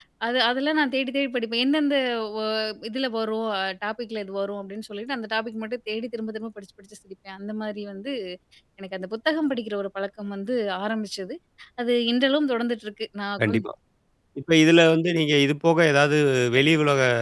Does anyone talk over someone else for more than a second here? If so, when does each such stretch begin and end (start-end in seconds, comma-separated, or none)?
none